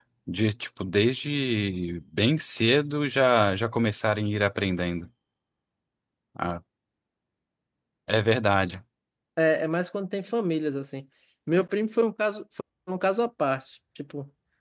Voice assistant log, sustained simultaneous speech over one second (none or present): none